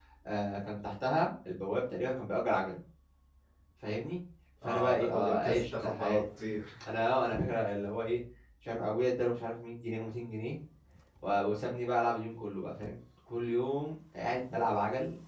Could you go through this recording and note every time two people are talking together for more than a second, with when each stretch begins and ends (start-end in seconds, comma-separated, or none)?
4.6-6.2